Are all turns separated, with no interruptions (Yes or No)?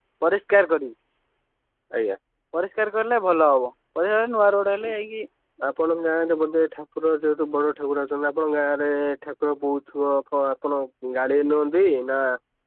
Yes